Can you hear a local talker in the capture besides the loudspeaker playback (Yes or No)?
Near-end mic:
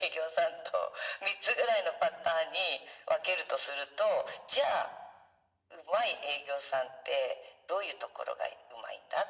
No